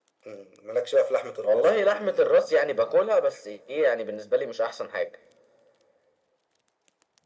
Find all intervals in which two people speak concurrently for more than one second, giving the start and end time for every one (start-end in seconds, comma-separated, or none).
1.4-2.7